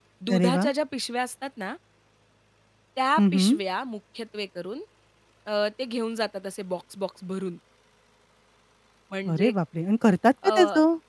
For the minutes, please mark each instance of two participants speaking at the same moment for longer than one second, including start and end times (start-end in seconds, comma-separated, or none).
none